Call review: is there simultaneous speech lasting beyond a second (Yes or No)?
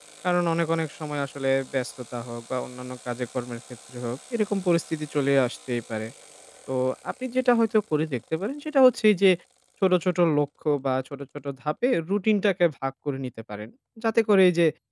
No